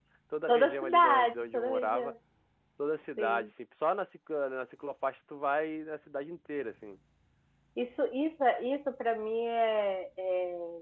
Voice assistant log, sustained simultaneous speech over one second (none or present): present